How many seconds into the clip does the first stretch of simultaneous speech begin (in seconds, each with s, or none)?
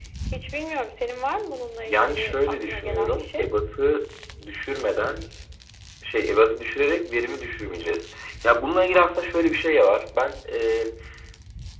1.8 s